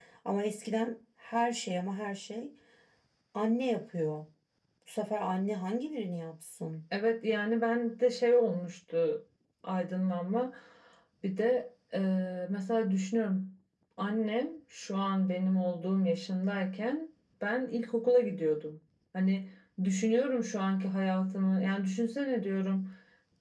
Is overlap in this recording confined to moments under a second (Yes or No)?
Yes